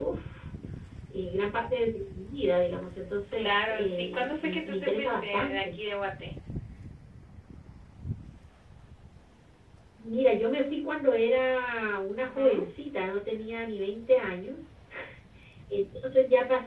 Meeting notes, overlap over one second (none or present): present